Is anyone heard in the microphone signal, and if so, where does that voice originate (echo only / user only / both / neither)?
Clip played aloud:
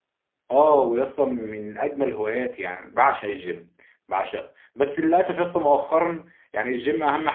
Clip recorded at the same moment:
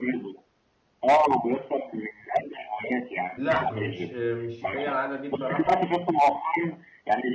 both